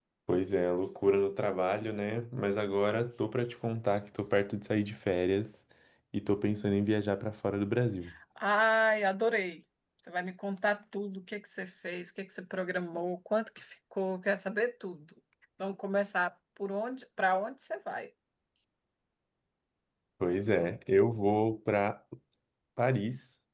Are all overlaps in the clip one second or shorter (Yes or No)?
Yes